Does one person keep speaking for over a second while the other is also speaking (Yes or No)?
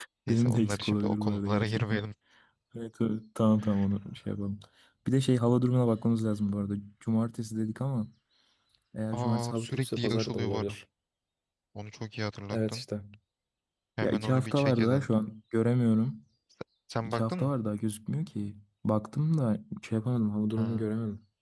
Yes